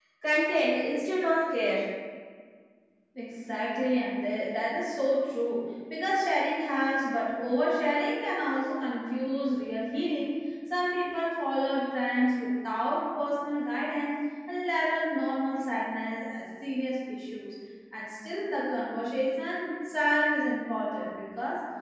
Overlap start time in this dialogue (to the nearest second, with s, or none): none